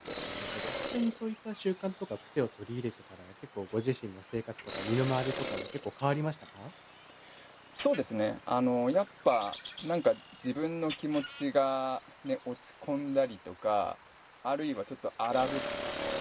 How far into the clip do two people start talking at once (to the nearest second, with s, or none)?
none